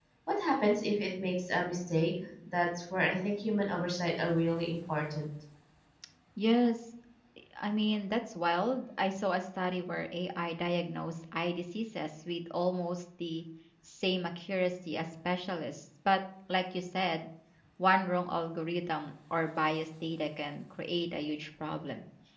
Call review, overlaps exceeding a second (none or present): none